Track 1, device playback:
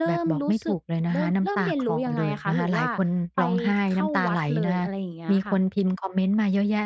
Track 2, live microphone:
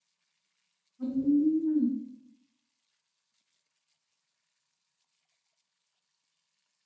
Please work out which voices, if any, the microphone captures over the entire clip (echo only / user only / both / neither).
user only